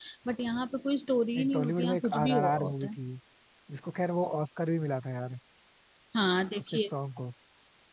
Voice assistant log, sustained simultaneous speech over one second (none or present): present